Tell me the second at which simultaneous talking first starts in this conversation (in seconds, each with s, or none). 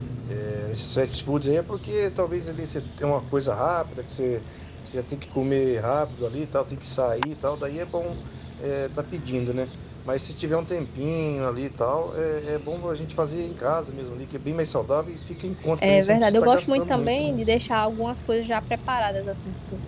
15.8 s